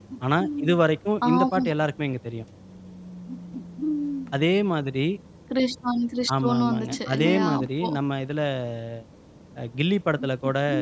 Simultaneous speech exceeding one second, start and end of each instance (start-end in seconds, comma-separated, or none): 6.4-7.9